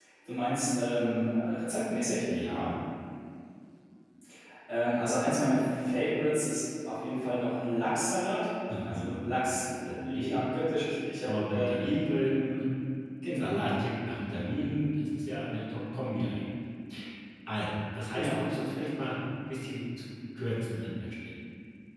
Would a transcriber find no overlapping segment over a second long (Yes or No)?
Yes